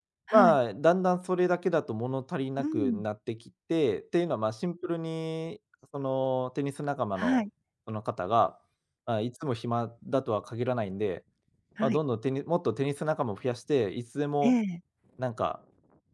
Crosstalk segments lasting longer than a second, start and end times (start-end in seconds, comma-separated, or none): none